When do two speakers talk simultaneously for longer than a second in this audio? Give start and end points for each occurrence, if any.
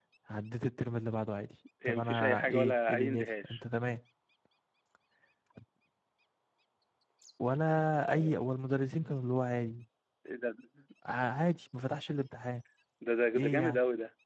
1.9-3.6

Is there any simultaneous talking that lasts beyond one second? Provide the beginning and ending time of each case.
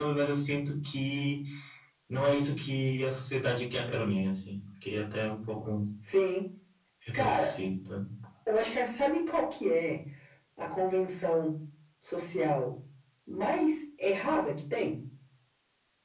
none

